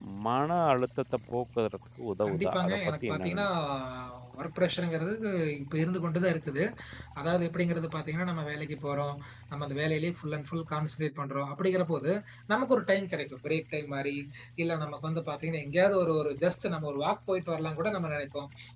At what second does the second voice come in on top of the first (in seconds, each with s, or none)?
2.2 s